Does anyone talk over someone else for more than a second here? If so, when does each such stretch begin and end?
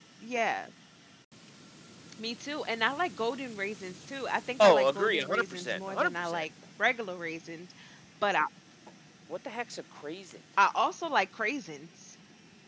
4.6-6.5

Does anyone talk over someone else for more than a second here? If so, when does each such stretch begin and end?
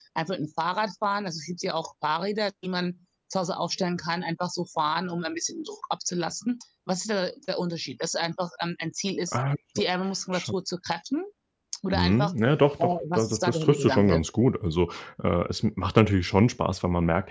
12.8-14.2

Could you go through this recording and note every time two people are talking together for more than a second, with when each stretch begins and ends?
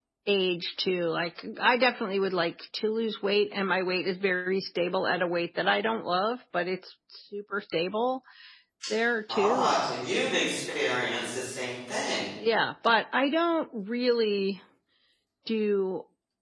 none

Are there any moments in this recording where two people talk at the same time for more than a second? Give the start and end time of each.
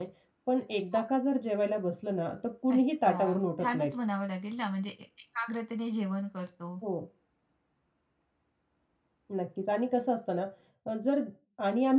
2.7-3.9

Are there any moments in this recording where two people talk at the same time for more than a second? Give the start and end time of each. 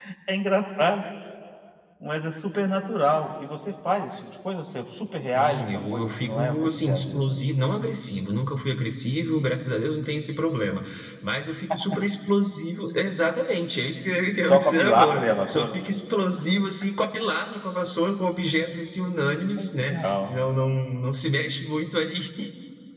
5.4-7.4, 14.4-15.7

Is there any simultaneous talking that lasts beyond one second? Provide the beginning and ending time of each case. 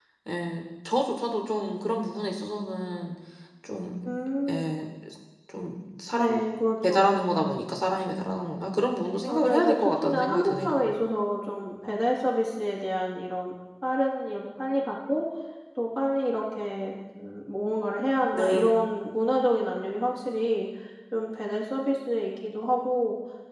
9.3-10.8

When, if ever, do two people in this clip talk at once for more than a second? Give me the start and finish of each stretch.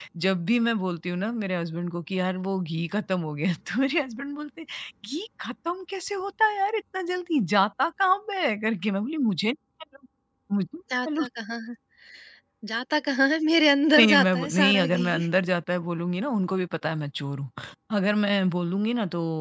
14.0-15.2

